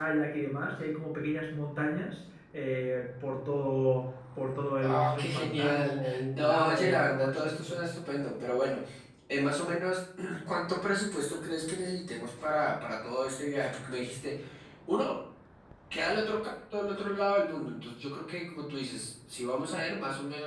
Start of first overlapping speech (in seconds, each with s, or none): 4.8 s